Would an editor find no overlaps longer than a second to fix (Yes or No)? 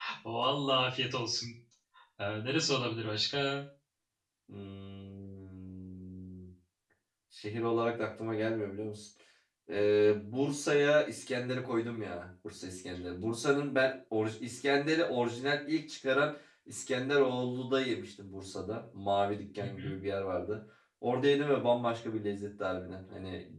Yes